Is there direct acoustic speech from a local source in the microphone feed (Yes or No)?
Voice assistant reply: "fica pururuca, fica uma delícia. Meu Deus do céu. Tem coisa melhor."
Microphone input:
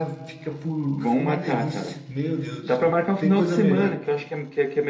Yes